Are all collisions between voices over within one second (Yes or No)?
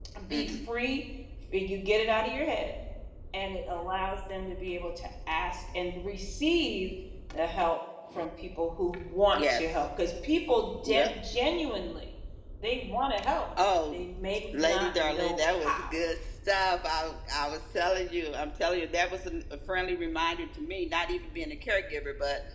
No